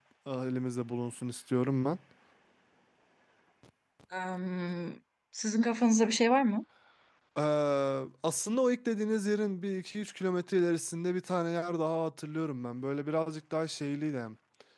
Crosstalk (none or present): none